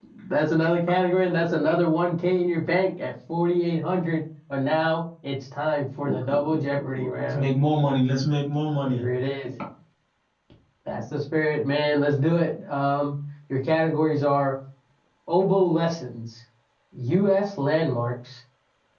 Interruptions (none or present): present